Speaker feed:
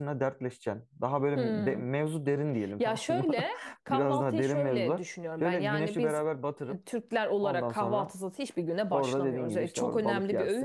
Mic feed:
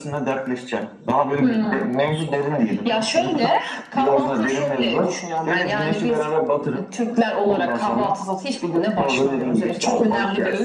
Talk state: echo only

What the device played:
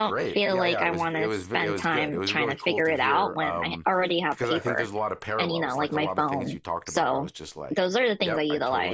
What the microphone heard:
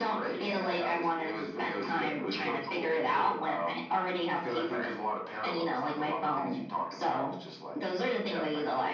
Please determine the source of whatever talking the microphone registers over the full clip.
echo only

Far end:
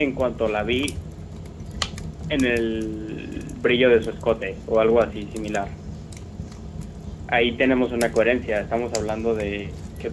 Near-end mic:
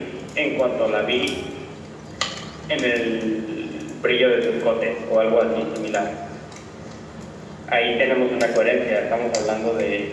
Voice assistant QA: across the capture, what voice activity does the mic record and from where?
echo only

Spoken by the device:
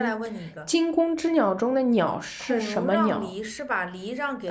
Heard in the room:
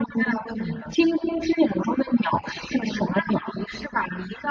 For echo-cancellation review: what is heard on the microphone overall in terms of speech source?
echo only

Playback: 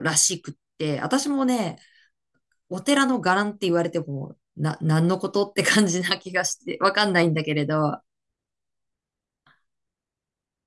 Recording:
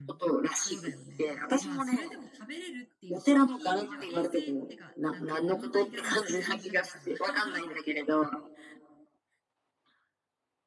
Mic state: both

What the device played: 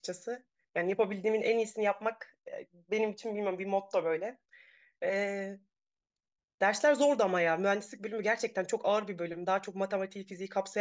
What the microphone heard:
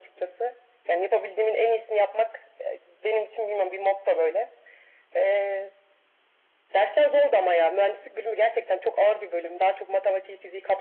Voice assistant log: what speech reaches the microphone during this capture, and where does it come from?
echo only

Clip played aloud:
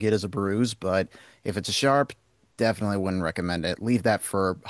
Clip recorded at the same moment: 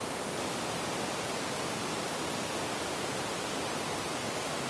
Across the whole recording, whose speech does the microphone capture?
neither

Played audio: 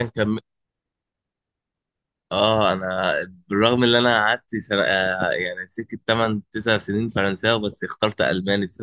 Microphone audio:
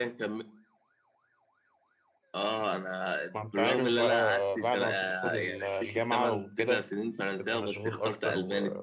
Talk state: both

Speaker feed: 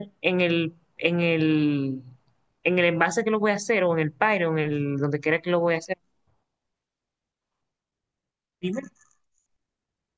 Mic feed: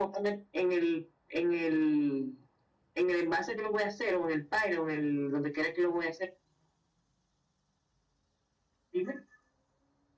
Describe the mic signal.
echo only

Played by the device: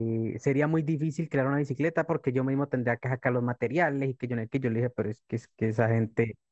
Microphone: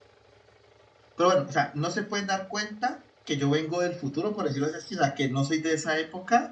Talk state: user only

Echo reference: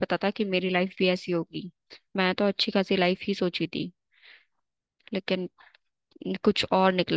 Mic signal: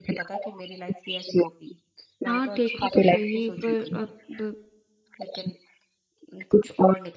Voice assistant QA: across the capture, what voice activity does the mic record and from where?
both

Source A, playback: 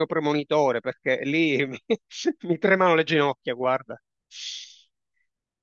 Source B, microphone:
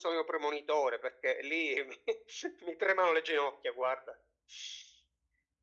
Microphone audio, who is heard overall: echo only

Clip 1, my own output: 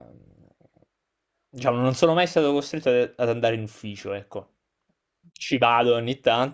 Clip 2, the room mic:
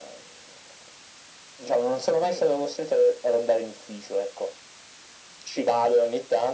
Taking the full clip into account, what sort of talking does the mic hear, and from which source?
both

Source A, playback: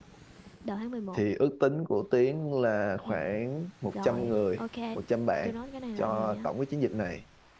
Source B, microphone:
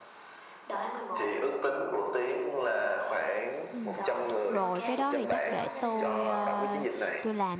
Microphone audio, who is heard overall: both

